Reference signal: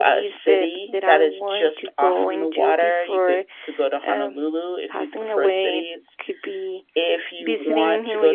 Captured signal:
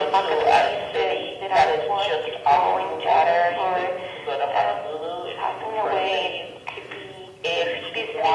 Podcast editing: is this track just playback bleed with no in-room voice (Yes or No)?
Yes